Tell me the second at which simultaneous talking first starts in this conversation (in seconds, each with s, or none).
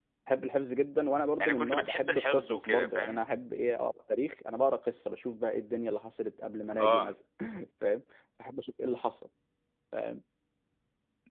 1.4 s